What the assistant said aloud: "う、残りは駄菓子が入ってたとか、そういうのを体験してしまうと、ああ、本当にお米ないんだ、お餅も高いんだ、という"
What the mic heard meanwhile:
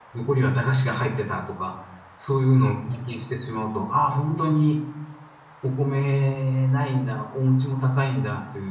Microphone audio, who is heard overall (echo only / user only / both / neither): echo only